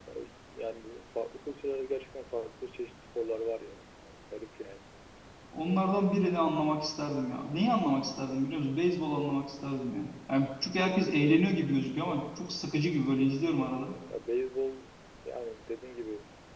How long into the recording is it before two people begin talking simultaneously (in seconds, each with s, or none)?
none